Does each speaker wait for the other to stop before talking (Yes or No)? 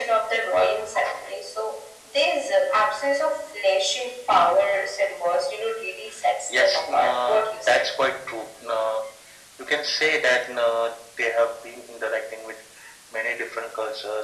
No